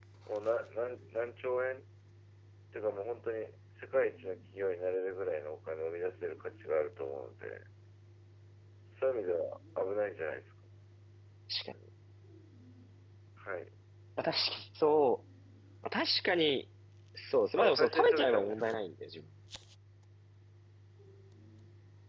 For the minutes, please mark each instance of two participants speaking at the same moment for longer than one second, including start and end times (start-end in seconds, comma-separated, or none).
17.6-18.8